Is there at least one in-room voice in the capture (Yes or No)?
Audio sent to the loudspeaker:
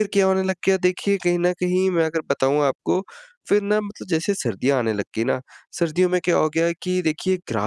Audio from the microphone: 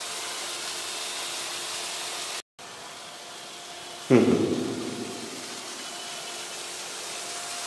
Yes